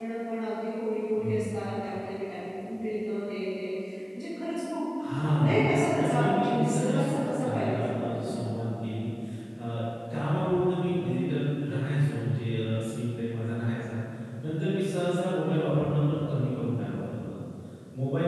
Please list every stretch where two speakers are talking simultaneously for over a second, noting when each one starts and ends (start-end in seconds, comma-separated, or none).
5.3-8.5